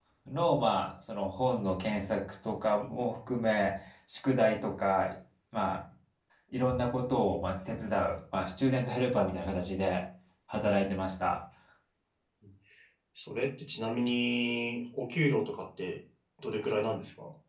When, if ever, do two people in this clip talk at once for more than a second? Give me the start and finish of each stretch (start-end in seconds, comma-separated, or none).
none